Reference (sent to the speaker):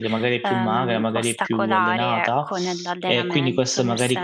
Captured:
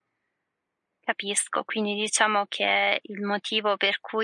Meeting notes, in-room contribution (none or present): present